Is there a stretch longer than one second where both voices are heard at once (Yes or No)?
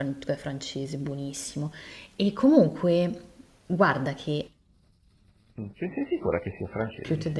No